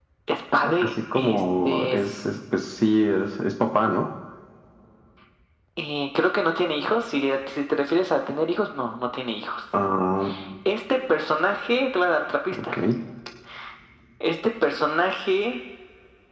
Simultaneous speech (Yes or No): Yes